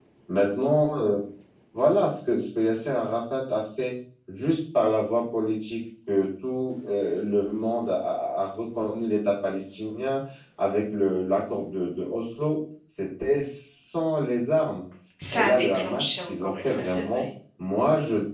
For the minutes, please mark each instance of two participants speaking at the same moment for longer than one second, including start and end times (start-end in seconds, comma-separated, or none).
15.3-17.2